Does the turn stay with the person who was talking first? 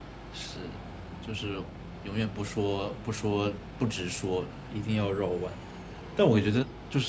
Yes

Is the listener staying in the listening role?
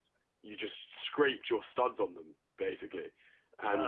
Yes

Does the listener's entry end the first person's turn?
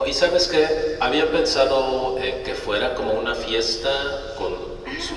No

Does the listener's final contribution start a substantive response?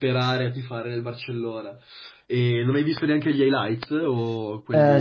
Yes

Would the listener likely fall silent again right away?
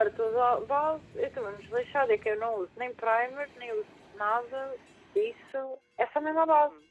No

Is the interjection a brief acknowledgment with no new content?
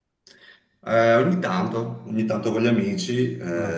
Yes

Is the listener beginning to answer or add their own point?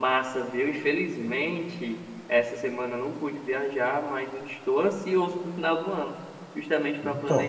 No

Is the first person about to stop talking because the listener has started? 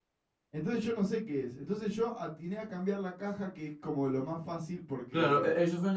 Yes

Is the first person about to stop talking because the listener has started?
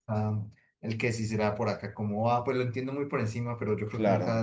No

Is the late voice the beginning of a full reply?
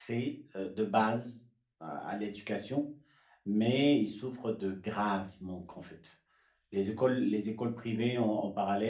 No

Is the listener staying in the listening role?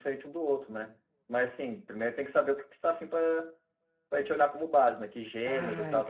No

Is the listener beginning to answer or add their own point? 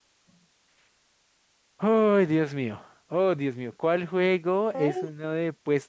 No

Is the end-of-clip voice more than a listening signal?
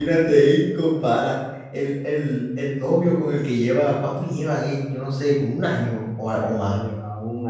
Yes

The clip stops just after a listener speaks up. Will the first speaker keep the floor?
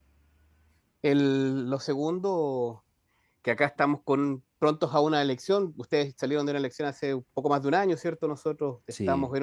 Yes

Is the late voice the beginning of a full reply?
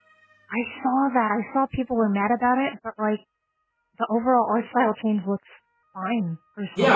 Yes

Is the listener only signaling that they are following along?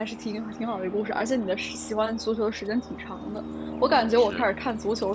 Yes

